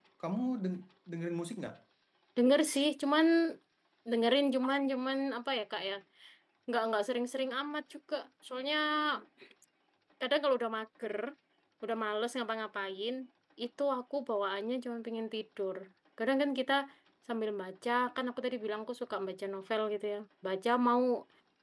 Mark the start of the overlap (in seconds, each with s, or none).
none